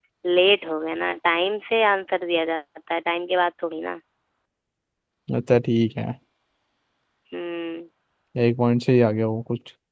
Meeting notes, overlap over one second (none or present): none